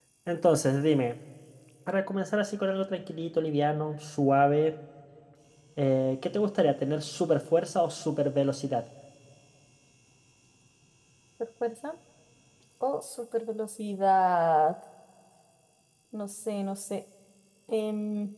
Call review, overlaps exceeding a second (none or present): none